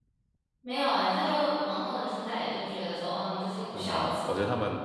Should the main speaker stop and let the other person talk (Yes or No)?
Yes